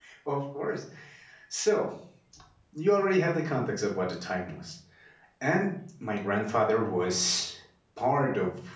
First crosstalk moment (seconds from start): none

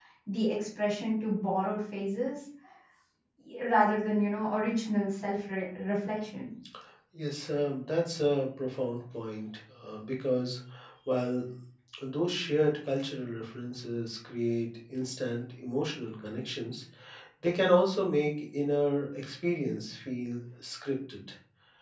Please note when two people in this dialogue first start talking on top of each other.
none

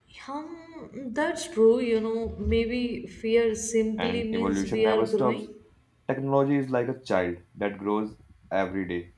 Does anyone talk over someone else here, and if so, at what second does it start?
4.0 s

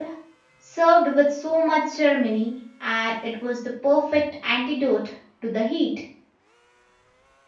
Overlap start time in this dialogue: none

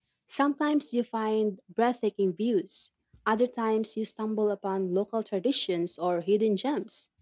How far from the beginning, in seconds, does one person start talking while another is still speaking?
none

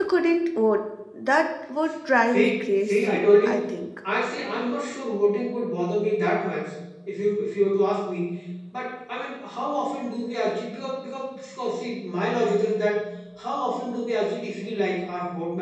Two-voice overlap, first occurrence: 2.2 s

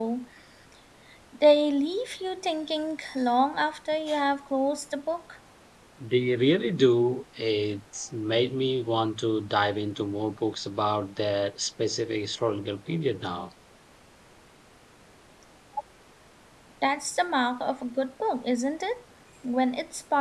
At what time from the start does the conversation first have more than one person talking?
none

